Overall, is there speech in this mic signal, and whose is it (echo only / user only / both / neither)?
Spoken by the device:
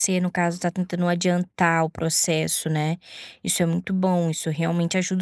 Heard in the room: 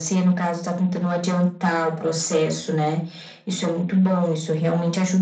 echo only